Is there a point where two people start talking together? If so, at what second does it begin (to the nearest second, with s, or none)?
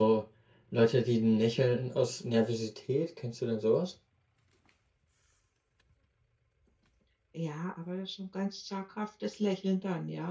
none